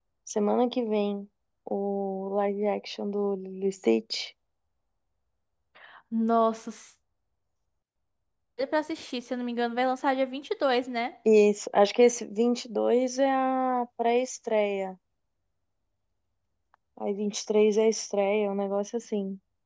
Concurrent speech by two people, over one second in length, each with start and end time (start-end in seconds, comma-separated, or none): none